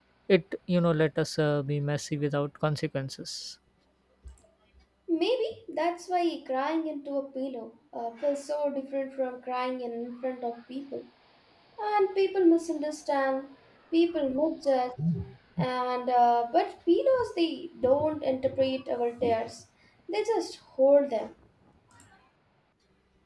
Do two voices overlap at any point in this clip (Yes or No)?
No